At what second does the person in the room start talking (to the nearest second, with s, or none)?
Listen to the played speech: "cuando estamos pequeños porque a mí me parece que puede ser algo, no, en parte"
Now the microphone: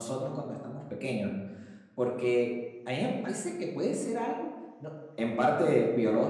none